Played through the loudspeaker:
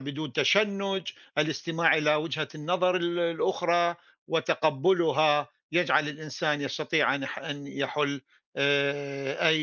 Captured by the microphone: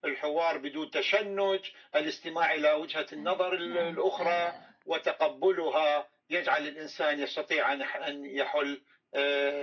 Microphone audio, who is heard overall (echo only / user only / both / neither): both